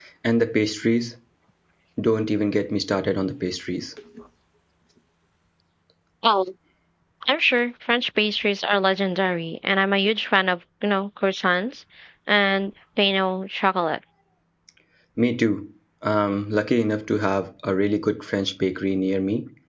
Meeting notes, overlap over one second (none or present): none